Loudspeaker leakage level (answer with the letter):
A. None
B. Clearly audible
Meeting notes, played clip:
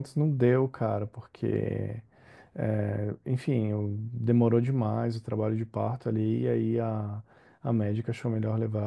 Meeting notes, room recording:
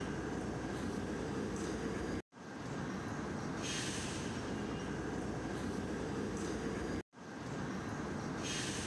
A